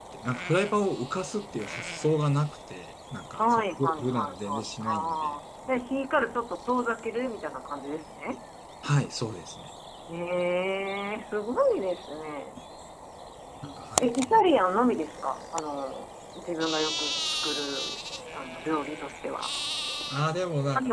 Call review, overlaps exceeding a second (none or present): present